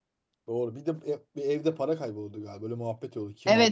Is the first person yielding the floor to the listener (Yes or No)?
Yes